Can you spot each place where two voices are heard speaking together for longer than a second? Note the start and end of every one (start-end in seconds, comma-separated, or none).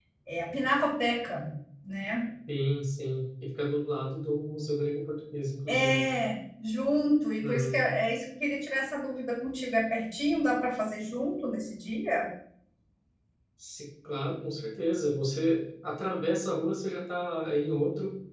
none